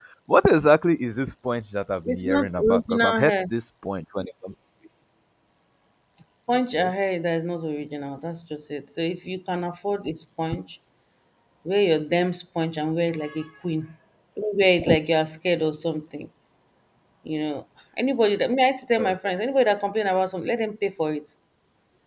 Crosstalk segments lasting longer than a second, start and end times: 2.0-3.3

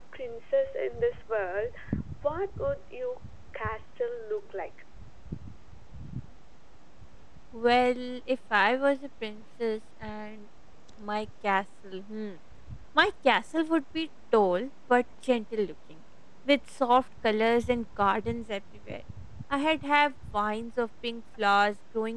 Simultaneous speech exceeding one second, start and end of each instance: none

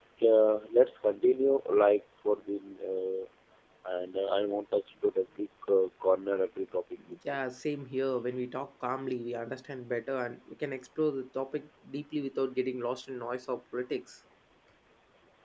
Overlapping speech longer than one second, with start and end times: none

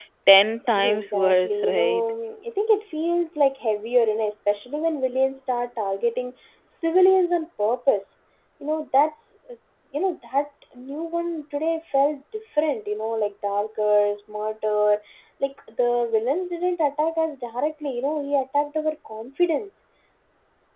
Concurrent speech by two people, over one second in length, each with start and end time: 0.8-2.0

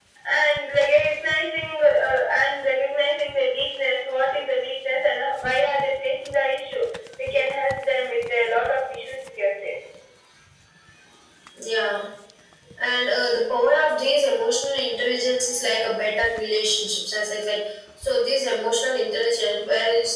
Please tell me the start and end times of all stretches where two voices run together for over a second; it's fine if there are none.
none

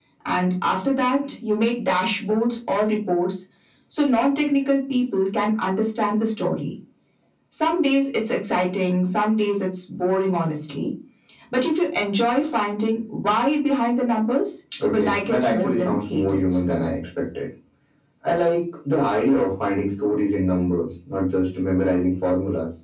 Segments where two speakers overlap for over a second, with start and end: 14.8-16.4

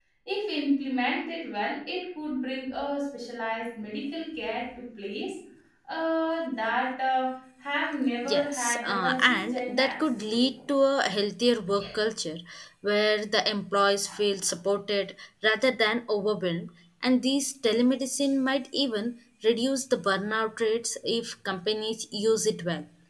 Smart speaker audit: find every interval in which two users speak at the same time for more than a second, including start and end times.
8.2-10.4

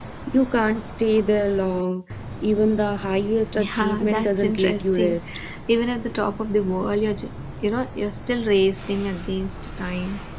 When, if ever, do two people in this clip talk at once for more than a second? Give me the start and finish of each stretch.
3.5-5.2

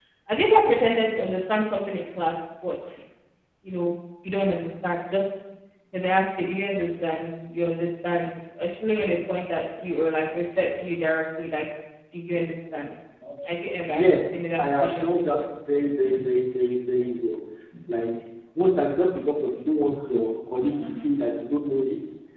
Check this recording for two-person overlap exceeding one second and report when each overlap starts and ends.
13.9-15.4

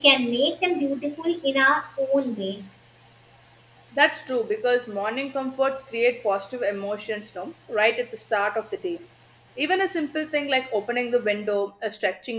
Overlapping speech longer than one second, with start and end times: none

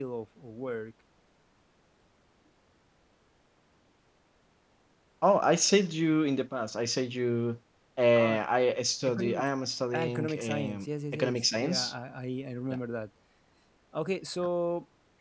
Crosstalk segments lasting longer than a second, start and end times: 9.9-11.9

